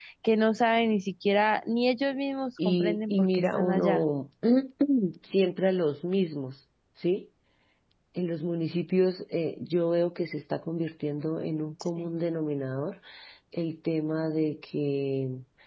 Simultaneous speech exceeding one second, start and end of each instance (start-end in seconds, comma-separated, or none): 2.6-4.0